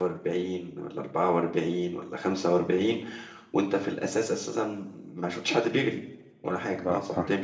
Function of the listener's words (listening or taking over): listening